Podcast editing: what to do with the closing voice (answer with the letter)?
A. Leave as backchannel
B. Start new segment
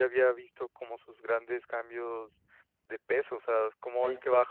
A